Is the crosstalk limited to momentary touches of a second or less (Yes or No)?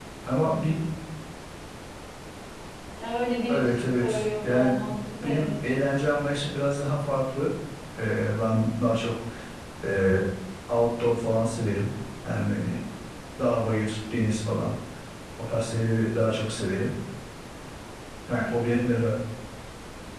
No